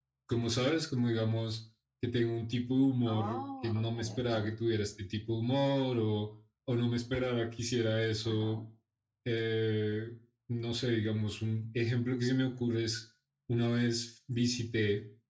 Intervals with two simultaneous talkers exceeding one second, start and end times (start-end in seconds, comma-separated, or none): 3.1-4.4